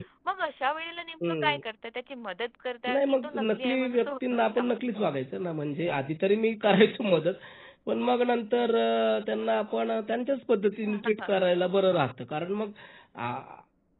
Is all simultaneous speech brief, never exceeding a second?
No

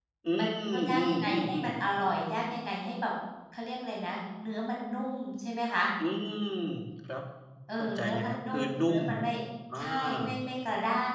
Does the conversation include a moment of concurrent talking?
Yes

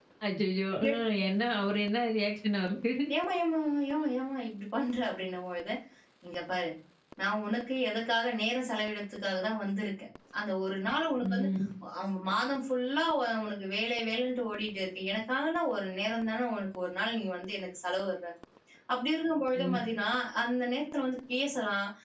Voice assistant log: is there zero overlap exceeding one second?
Yes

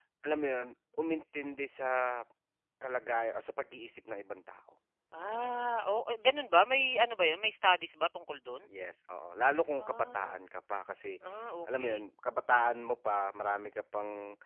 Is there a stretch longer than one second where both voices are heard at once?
No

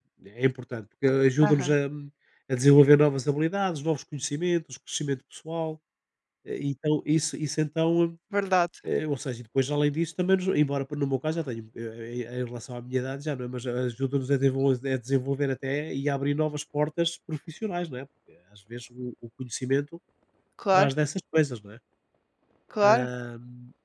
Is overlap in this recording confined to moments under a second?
Yes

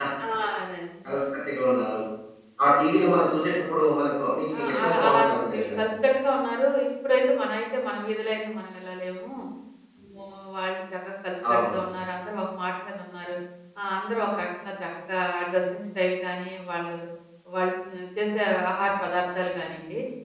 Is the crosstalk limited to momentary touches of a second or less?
No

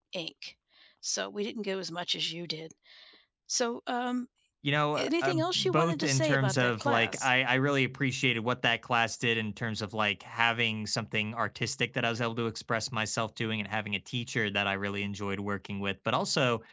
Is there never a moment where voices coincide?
No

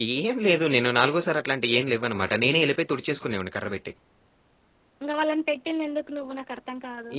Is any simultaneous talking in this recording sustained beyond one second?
No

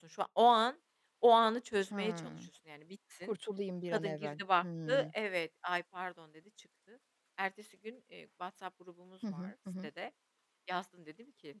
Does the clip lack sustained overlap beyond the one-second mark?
No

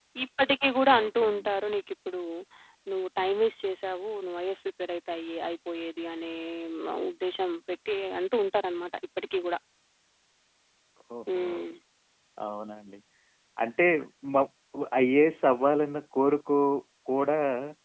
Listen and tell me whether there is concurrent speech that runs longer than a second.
No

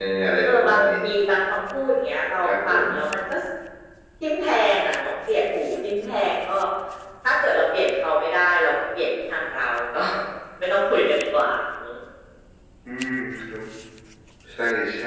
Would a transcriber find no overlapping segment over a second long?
Yes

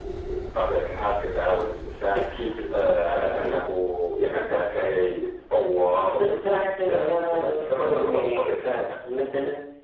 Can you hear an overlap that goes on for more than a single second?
Yes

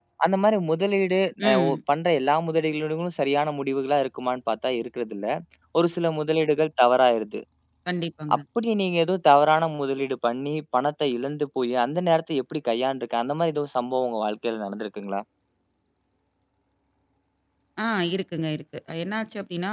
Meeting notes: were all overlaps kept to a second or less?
Yes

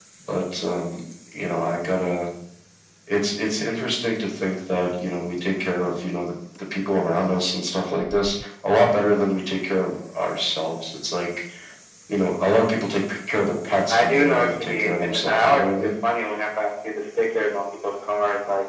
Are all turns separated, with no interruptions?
No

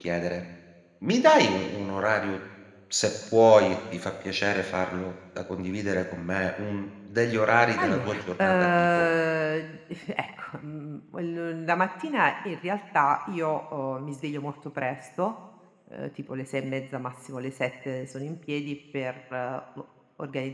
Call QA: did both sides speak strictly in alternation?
No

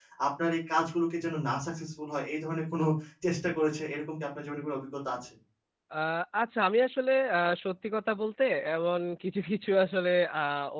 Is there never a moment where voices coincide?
Yes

